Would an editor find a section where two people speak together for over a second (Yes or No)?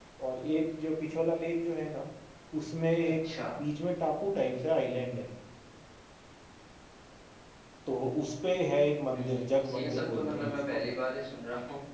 Yes